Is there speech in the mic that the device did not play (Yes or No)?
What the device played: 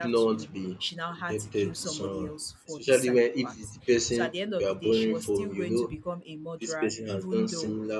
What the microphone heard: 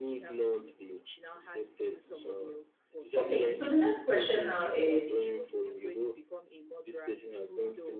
Yes